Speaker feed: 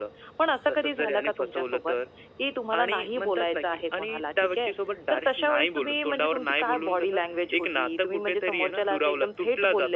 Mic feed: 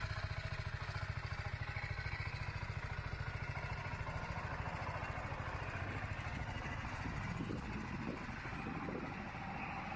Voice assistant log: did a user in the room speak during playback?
No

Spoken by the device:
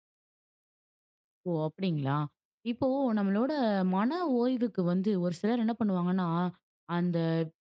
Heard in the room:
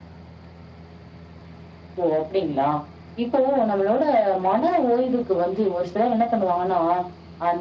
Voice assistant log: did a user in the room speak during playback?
No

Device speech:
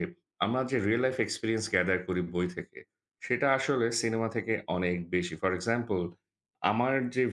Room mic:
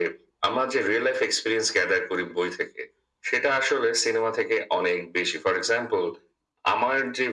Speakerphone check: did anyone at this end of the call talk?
No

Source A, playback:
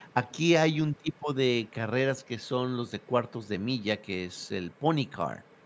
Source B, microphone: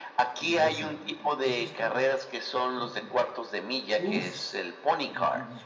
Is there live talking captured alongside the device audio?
Yes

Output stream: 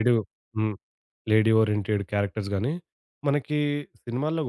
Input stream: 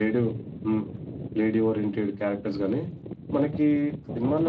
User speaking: No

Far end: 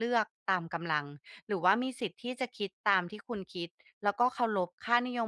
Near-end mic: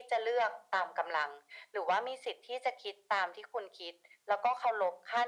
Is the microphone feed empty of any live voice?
Yes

